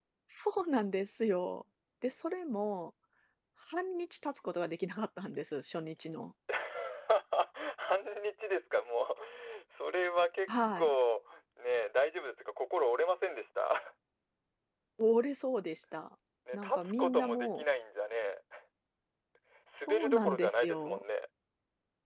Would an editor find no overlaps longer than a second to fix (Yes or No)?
No